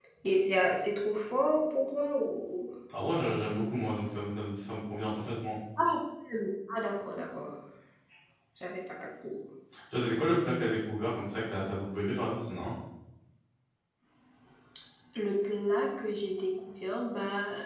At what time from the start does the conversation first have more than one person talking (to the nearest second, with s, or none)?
none